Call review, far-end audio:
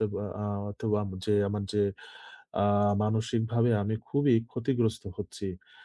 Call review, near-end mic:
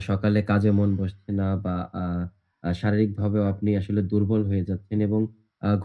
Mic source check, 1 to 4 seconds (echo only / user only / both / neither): user only